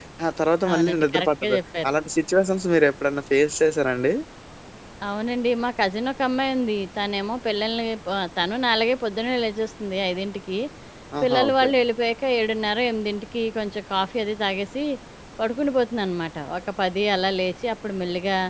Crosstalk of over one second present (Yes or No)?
Yes